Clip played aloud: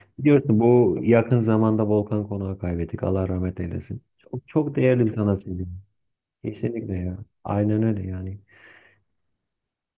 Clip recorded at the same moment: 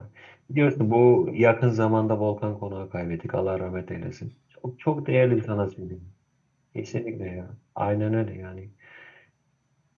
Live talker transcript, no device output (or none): none